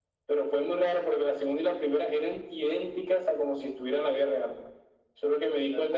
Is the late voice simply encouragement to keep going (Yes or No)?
Yes